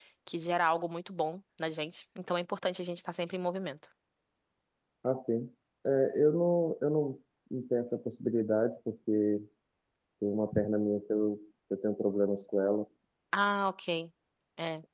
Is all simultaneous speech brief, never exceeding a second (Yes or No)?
Yes